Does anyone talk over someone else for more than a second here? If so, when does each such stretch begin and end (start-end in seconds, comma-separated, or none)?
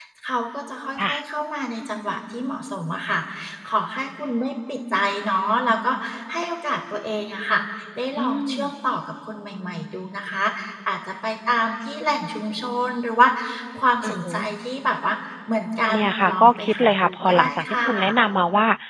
15.9-18.2